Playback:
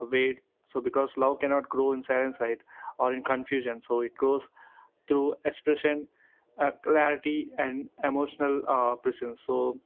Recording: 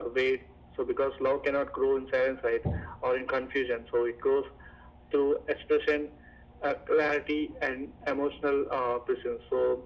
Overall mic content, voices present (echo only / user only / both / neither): echo only